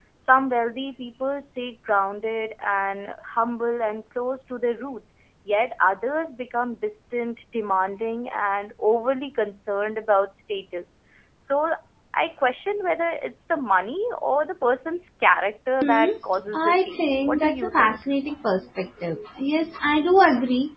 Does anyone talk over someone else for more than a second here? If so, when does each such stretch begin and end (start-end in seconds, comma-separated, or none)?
16.5-18.0